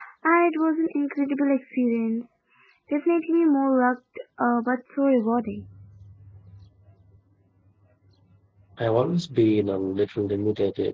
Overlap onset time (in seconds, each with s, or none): none